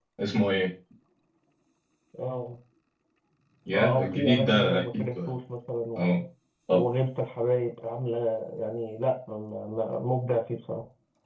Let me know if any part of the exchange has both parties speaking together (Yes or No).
Yes